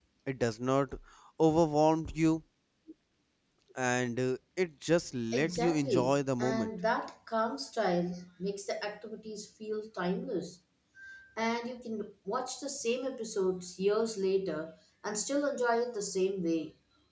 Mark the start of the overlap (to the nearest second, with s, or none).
5 s